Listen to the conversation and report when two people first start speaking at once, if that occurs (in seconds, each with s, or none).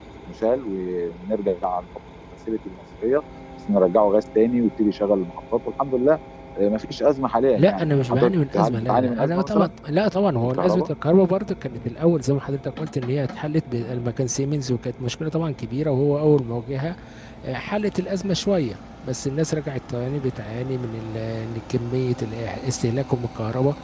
7.5 s